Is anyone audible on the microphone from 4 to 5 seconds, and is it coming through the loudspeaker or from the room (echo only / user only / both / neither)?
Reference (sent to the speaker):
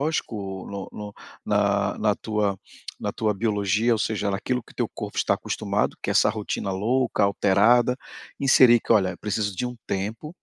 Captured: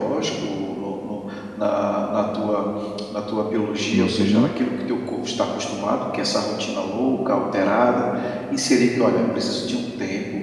both